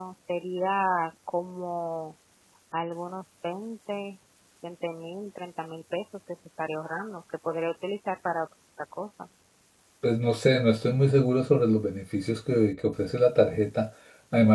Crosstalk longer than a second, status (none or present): none